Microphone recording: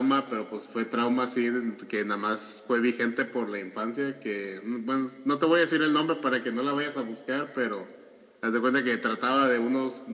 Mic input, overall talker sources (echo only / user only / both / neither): echo only